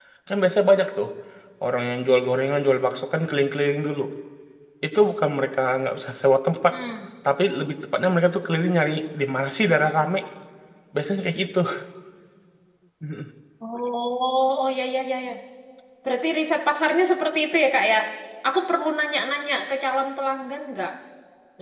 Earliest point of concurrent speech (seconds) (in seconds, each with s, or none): none